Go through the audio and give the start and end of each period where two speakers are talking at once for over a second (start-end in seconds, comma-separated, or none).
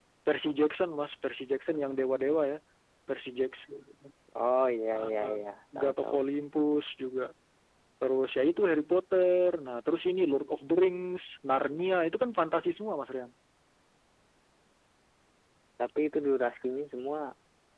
4.9-6.2